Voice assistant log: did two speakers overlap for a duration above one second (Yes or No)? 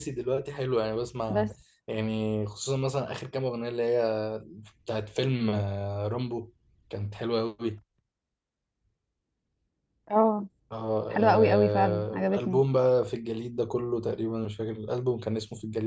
Yes